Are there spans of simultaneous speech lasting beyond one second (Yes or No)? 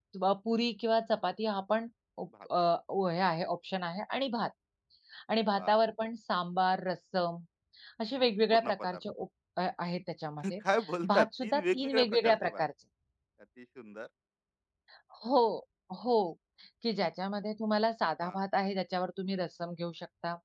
Yes